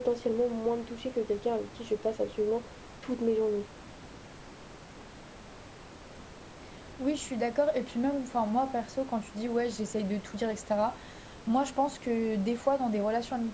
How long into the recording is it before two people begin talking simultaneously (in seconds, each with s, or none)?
none